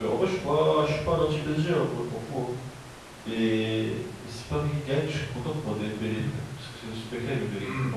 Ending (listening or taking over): listening